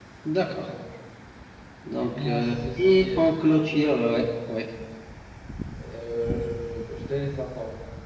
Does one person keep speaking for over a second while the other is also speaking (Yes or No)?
Yes